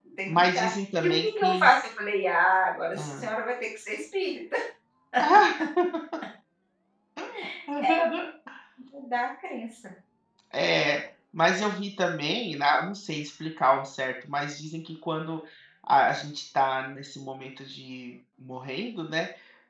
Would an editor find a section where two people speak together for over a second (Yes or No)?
Yes